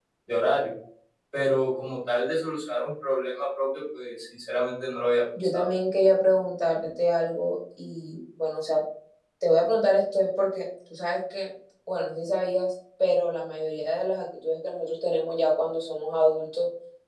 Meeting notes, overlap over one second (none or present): none